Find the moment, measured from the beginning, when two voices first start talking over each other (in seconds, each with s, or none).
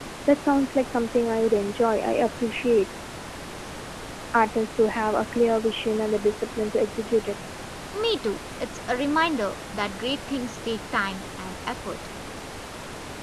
none